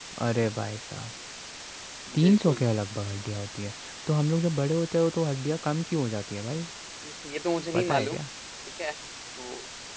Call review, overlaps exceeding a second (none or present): none